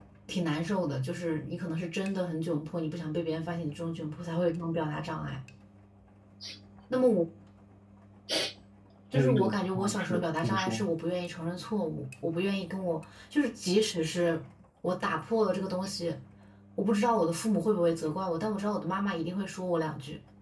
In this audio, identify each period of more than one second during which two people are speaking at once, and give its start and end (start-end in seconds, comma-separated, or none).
9.1-10.9